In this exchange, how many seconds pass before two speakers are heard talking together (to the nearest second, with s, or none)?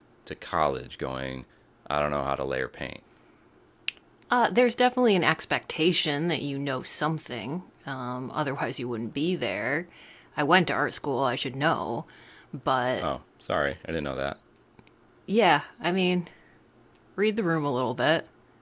none